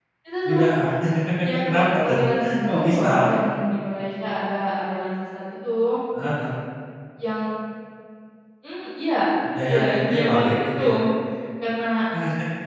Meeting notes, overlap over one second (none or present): present